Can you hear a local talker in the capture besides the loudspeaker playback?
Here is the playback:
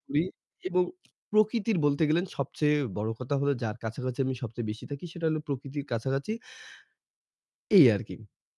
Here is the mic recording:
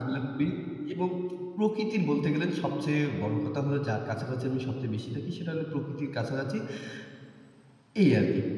No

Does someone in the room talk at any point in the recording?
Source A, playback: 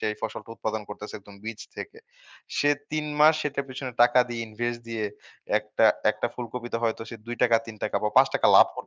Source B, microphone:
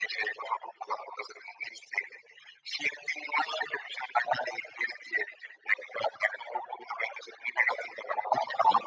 No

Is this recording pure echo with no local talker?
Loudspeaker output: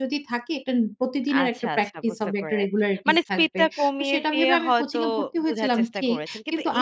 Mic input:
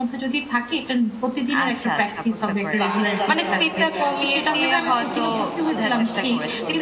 No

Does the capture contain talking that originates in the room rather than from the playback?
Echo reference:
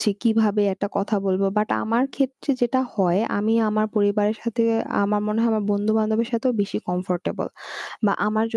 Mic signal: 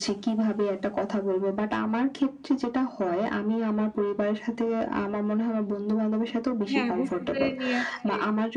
Yes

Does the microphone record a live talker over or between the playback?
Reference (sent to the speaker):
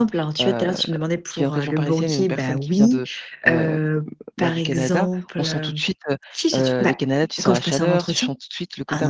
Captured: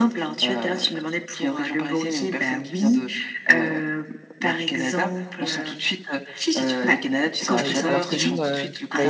Yes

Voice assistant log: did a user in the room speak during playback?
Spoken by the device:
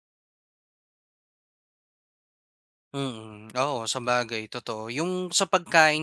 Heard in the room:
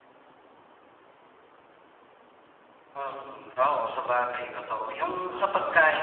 Yes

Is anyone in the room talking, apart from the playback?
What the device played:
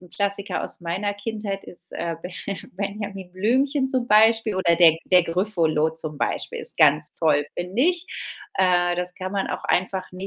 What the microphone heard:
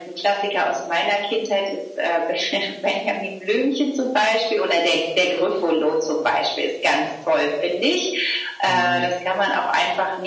Yes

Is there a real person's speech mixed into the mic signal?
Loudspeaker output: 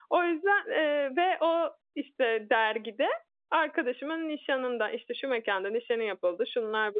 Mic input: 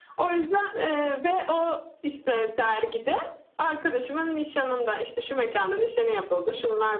No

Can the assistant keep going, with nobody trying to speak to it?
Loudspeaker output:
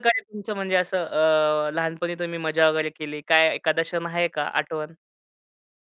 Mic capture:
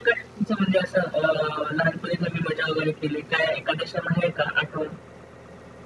Yes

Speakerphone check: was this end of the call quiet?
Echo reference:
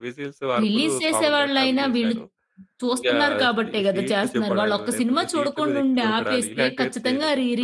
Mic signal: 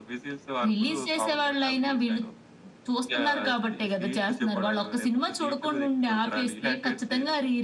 Yes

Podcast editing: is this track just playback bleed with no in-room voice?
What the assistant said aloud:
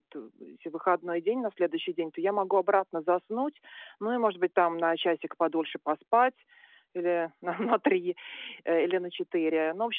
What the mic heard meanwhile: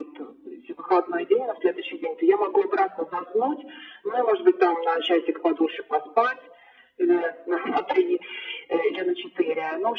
Yes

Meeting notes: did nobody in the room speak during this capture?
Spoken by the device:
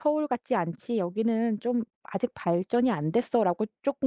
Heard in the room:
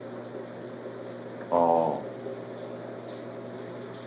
No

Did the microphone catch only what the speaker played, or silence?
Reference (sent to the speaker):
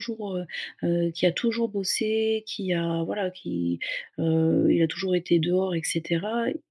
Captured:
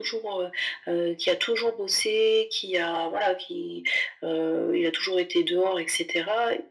Yes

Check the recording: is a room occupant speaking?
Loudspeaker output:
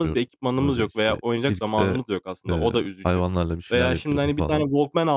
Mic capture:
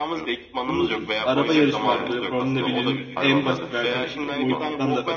Yes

